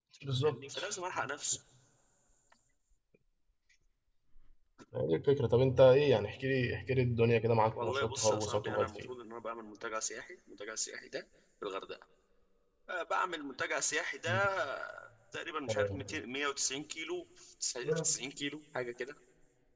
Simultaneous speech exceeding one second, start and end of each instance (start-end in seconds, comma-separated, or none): 7.7-9.1